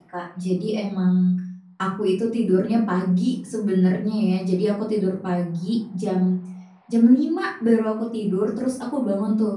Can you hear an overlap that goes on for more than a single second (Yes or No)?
No